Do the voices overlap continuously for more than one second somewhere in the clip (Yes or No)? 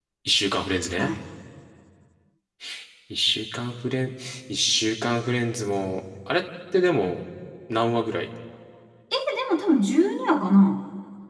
No